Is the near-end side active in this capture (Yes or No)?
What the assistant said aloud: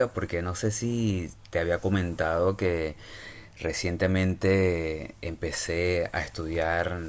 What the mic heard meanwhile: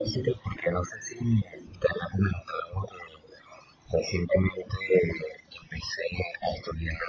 No